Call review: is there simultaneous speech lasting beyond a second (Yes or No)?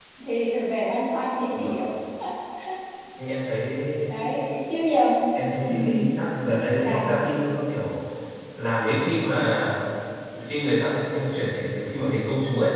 No